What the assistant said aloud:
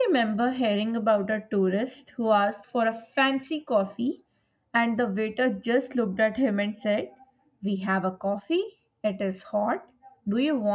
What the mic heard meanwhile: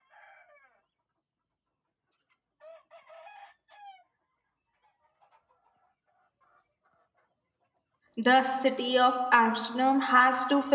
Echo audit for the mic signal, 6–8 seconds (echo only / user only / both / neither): neither